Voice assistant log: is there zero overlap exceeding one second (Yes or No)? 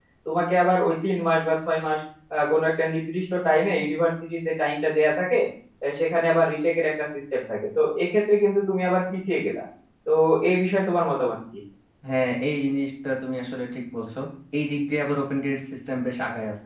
Yes